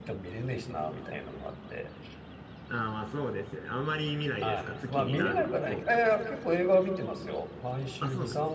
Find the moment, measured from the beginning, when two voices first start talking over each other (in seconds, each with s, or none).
4.4 s